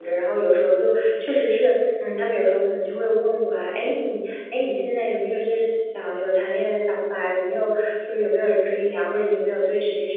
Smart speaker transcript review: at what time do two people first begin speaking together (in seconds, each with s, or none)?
none